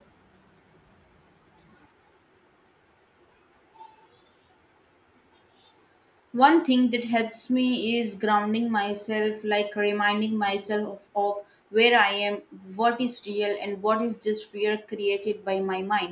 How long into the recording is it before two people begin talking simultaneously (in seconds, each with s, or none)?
none